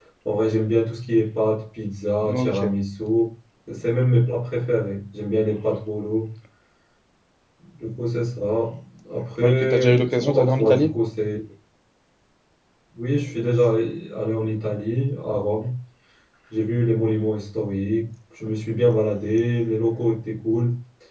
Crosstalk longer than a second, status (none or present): present